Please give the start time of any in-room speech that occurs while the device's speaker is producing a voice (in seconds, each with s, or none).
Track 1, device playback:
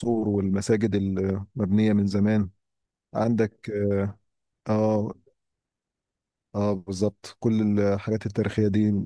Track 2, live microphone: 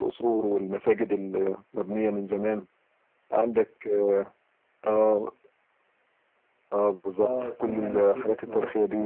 7.2 s